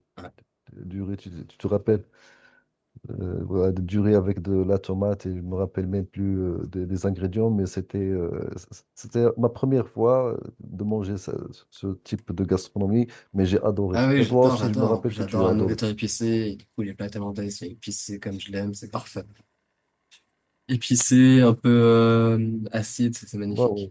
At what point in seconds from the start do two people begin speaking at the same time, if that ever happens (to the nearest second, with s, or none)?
14 s